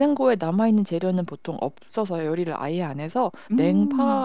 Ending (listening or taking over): listening